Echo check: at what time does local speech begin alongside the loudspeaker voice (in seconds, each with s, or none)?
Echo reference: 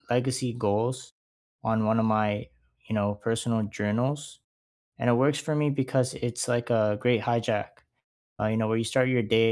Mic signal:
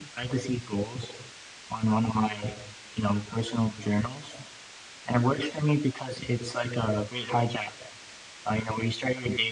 none